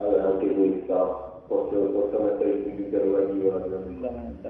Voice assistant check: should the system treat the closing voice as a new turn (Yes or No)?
Yes